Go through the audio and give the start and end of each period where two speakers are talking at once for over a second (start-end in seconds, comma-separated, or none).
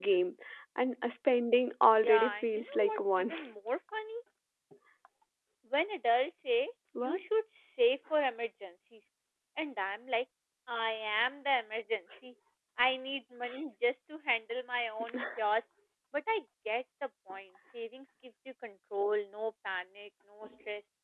2.0-3.3